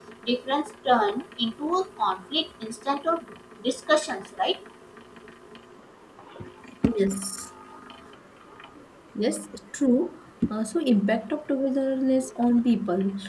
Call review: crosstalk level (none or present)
none